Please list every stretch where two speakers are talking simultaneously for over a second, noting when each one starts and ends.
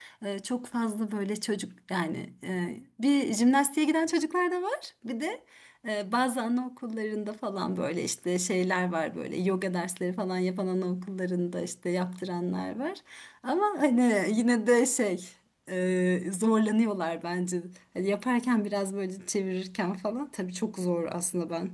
none

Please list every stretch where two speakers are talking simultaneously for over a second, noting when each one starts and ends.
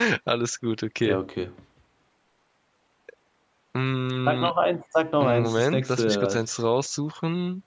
5.2-6.4

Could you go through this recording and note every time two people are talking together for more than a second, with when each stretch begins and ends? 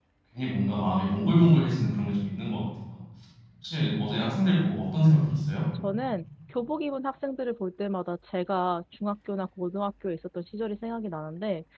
none

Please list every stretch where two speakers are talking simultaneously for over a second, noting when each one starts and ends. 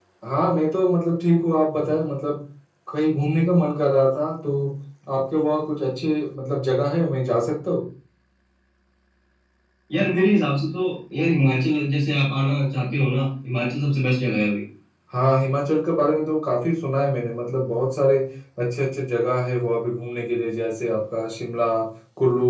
none

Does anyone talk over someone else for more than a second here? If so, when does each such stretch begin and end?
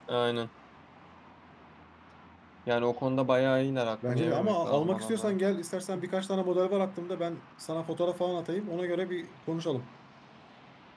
4.1-5.3

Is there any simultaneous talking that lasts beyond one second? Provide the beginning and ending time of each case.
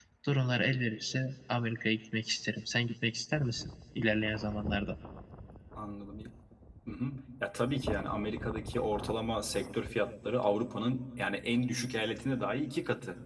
none

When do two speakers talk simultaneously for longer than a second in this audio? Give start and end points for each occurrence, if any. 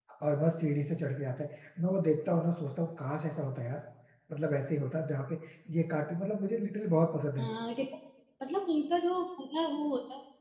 none

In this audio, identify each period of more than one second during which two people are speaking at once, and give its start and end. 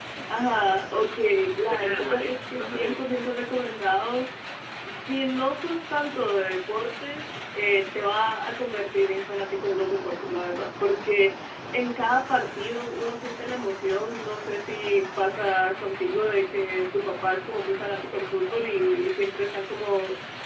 1.7-3.2

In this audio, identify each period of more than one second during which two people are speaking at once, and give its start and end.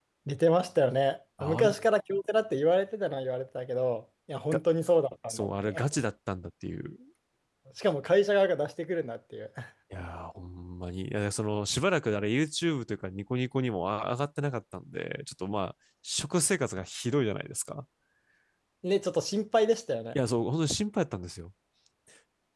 none

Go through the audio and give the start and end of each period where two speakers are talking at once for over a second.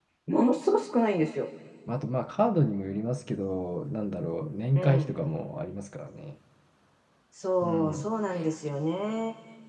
none

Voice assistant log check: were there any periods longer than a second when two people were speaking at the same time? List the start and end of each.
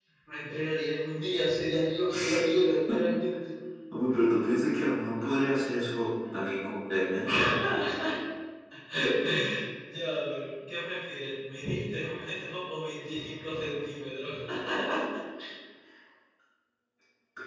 none

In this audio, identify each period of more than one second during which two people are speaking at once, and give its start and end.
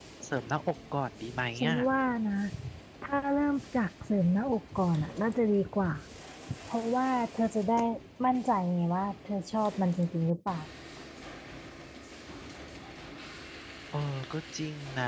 none

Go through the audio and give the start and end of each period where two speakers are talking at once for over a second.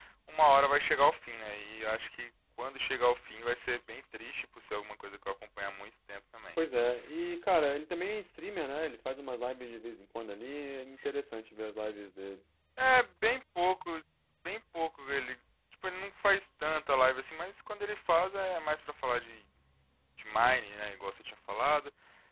none

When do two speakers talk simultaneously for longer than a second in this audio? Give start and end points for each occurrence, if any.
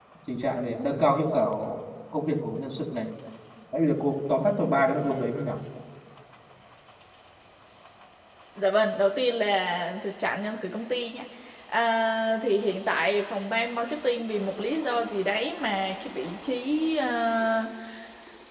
none

